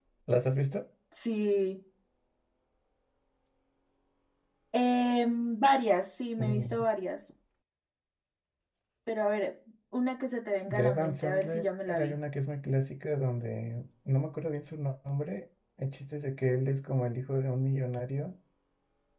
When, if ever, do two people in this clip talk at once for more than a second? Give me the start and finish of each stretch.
10.7-12.2

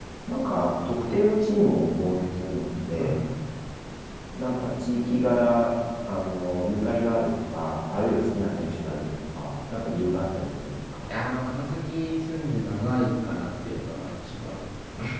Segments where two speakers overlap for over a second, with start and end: none

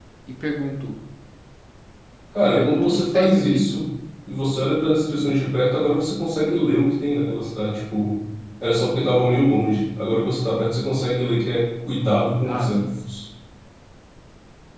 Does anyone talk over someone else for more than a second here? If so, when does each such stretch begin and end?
2.5-3.8

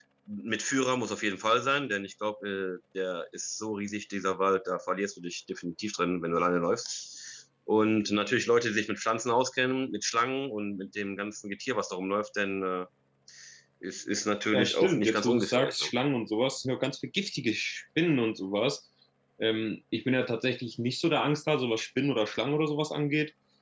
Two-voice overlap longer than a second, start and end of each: 14.5-15.9

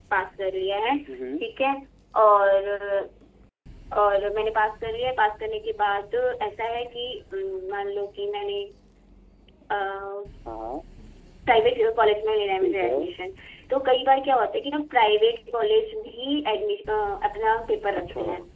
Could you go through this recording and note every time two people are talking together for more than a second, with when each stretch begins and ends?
none

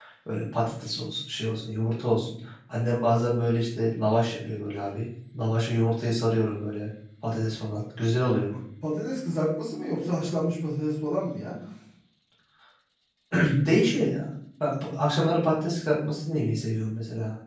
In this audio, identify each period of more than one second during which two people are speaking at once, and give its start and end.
none

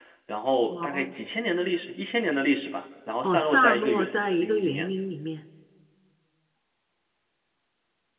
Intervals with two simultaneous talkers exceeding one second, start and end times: 3.2-4.9

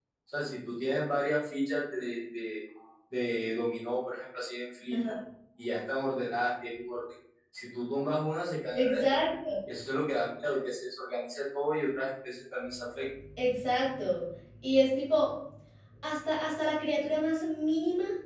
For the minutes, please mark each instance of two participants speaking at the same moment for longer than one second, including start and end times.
none

